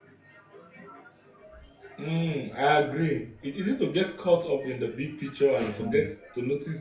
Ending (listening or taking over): listening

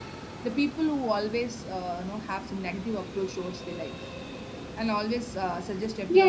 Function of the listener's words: taking over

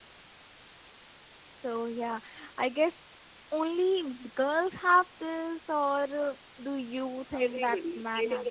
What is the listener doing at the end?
taking over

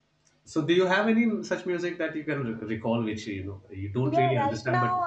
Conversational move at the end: taking over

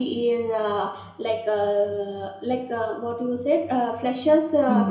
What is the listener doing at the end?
listening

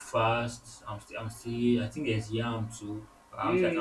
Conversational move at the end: taking over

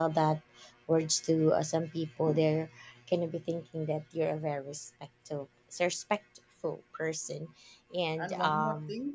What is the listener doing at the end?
taking over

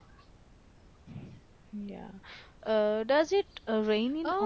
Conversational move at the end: taking over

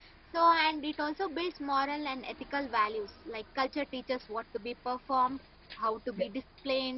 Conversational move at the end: listening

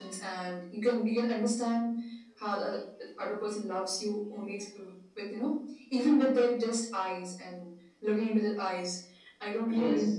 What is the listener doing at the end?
listening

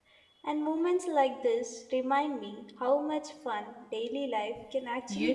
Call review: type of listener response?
taking over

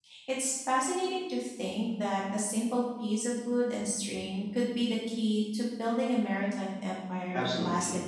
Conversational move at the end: taking over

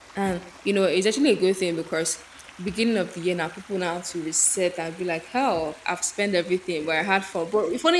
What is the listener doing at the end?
listening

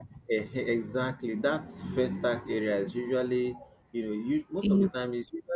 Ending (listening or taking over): listening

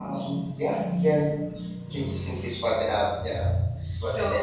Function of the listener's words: taking over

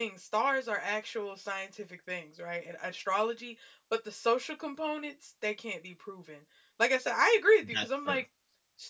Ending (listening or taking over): listening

